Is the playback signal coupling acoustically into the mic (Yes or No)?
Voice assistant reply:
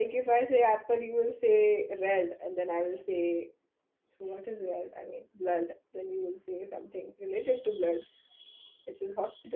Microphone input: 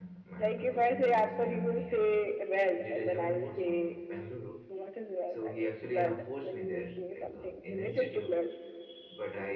Yes